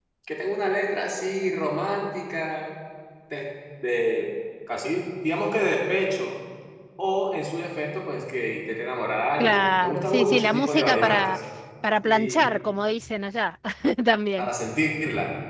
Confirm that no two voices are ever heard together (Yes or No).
No